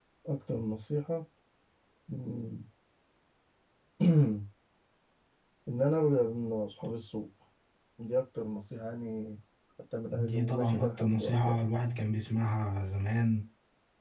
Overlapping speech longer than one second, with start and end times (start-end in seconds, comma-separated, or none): 10.1-11.7